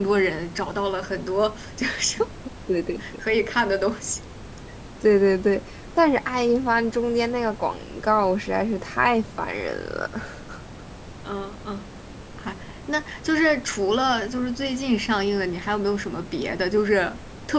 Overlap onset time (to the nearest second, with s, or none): none